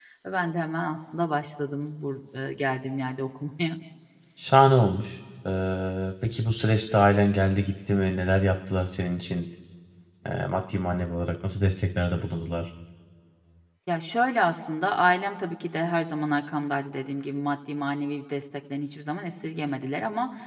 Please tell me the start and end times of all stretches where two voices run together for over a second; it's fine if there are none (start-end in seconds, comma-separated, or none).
none